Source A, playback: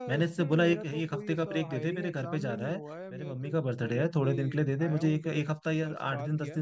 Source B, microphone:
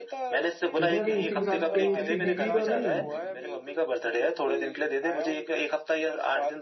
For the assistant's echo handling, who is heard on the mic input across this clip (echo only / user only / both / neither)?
both